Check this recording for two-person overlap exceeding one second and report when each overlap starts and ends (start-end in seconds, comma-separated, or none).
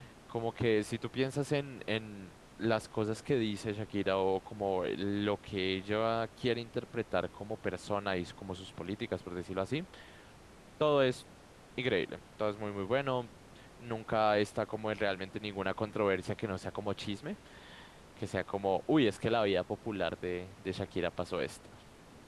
none